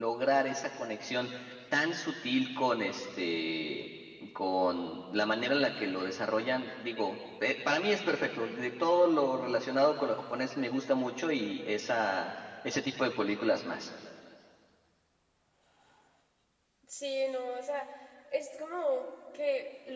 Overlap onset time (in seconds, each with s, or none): none